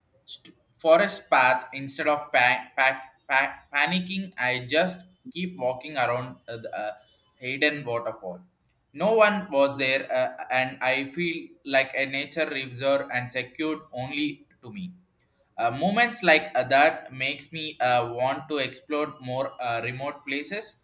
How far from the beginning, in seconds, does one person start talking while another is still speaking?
none

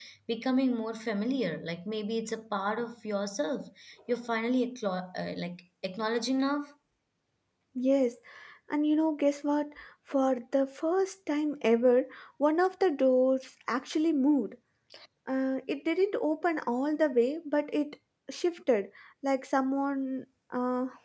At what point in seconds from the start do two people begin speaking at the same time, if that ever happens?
none

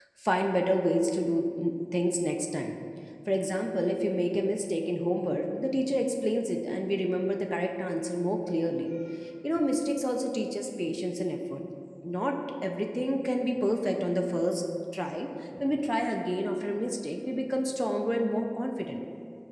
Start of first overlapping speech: none

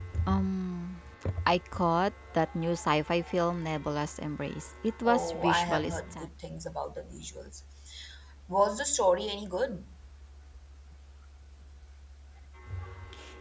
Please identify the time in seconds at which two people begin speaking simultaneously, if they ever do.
5.0 s

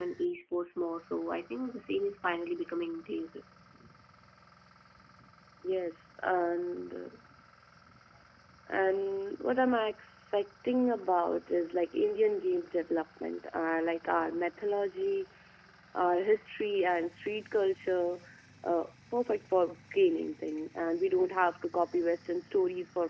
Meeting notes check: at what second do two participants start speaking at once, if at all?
none

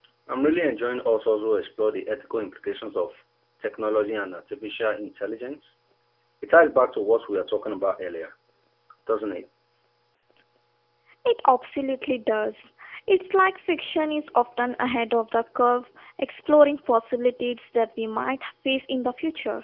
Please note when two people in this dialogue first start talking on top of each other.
none

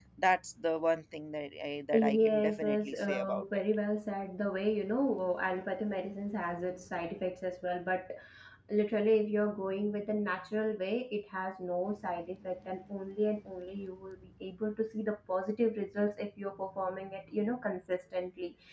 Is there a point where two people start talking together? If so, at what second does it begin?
1.9 s

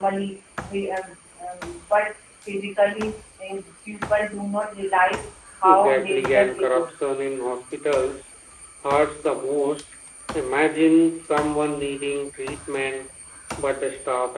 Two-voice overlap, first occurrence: 5.6 s

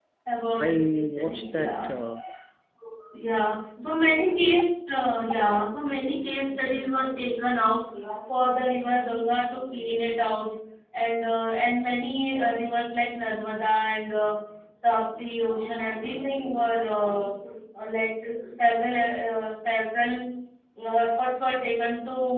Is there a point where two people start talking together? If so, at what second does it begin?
0.6 s

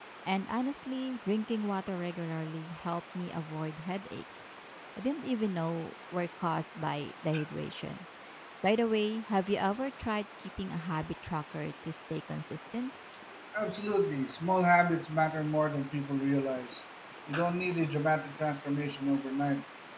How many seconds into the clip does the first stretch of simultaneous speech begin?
none

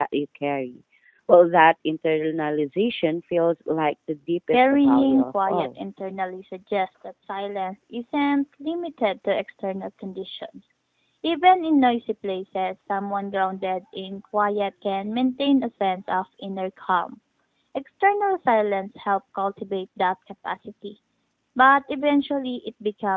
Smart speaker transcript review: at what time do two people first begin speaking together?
4.5 s

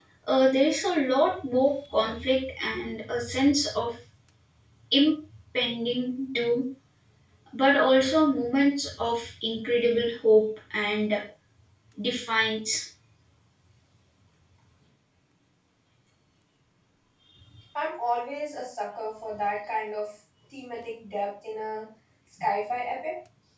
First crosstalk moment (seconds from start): none

